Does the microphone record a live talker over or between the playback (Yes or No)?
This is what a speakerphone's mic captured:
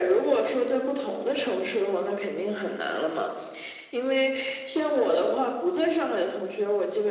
No